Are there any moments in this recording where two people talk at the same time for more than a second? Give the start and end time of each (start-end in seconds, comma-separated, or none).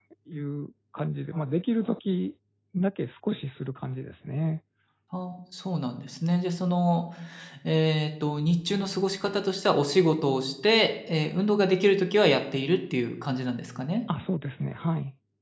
none